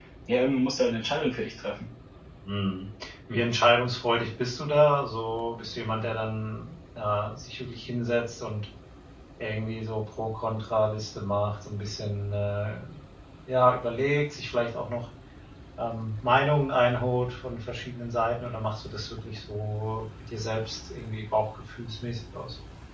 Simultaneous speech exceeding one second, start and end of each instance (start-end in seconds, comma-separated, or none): none